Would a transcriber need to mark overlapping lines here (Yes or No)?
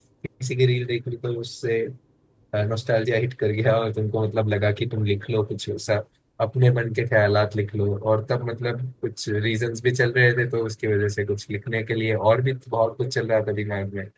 No